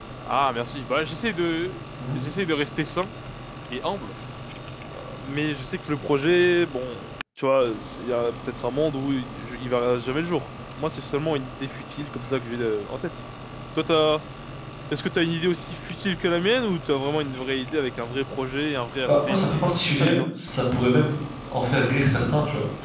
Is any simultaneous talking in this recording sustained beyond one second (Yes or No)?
Yes